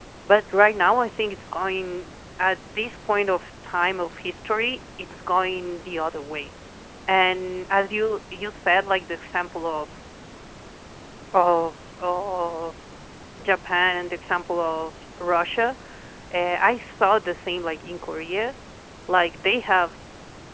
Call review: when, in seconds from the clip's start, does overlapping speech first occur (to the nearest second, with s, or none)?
none